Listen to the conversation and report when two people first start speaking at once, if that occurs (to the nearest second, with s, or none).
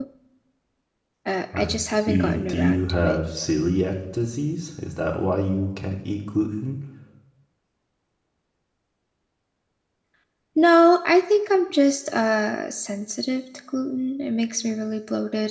2 s